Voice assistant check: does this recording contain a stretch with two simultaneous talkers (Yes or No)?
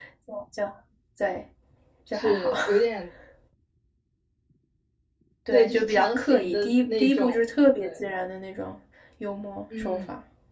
Yes